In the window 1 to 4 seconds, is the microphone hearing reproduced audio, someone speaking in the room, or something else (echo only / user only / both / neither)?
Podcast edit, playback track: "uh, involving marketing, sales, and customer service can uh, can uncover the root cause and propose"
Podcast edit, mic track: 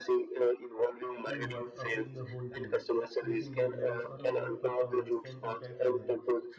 both